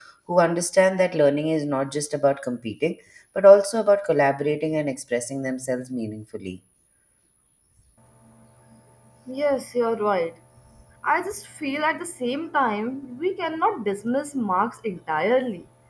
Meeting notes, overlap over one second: none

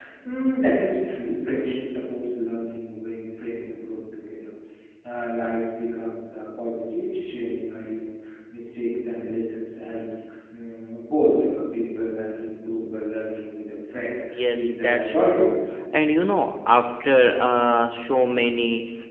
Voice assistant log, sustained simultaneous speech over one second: present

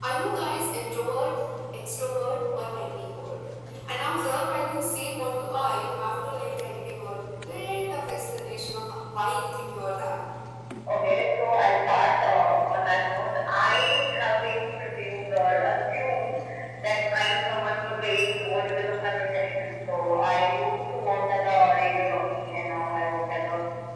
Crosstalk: none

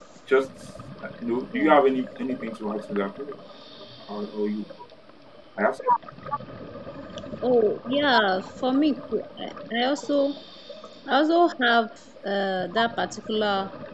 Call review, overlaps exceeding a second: none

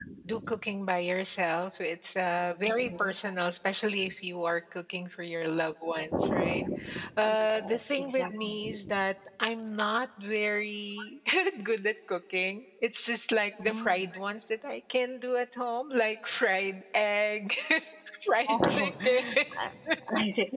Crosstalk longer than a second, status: present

